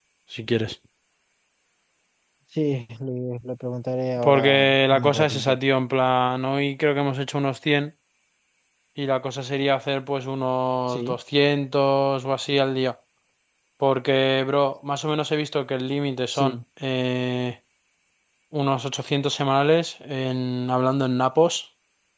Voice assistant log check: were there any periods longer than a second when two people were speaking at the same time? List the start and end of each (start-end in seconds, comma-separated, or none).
4.2-5.6